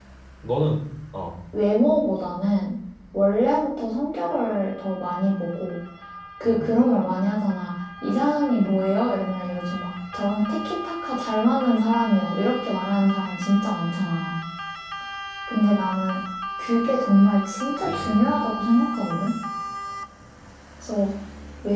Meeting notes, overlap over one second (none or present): none